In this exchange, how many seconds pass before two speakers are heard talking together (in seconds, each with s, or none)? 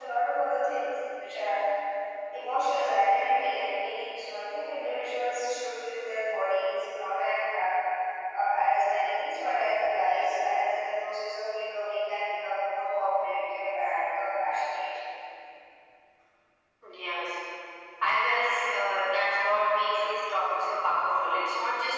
none